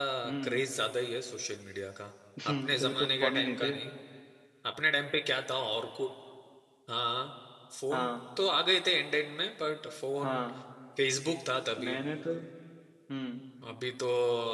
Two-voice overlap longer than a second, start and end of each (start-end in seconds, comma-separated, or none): 2.5-3.8